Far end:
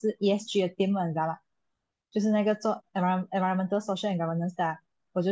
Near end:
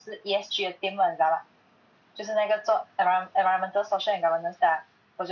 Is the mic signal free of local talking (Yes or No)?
Yes